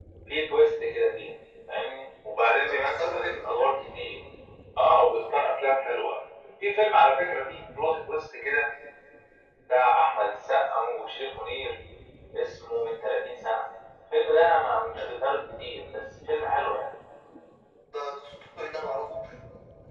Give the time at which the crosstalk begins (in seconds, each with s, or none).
2.4 s